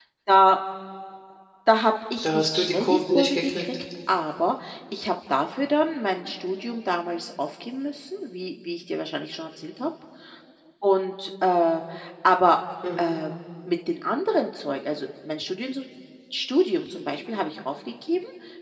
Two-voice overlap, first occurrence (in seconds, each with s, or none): 2.2 s